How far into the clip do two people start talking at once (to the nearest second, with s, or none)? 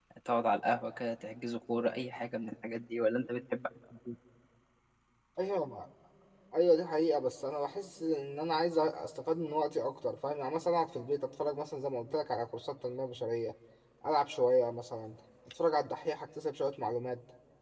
none